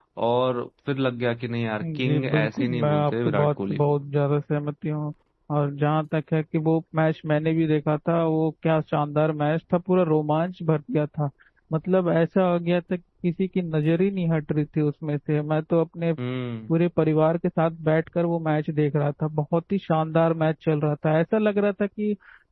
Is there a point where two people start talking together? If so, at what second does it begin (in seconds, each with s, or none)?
1.8 s